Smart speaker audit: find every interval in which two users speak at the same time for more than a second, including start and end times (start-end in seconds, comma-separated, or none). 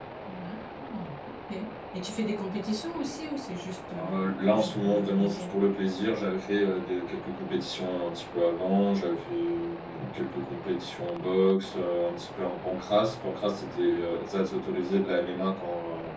4.0-5.4